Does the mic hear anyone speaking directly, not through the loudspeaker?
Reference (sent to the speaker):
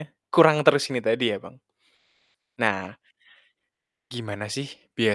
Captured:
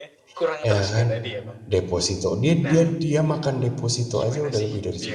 Yes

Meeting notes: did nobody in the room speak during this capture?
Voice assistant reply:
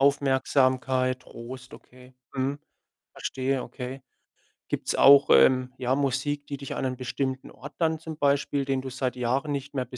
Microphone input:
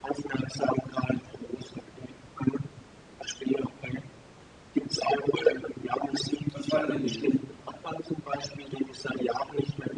No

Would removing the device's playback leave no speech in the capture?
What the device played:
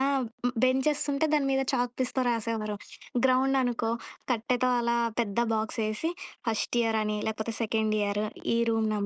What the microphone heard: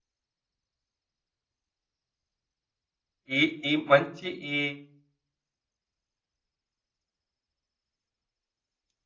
No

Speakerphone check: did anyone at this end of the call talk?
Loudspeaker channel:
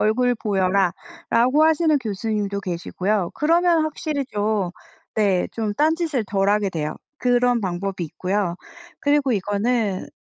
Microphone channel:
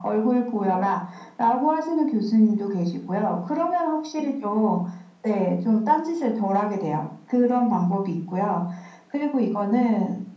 No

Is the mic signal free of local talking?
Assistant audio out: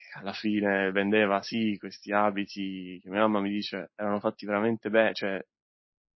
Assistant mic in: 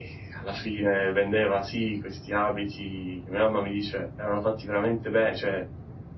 Yes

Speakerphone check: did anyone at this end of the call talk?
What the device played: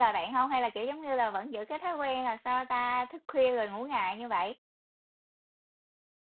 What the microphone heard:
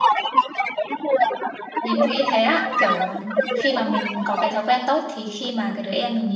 Yes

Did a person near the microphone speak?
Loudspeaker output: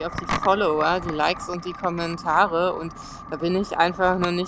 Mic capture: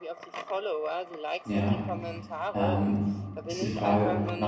Yes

